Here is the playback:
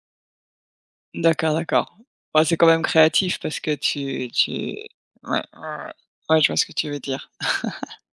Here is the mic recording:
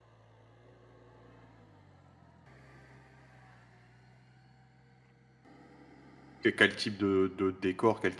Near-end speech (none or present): present